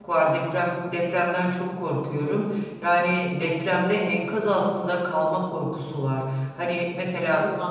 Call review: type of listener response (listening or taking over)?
listening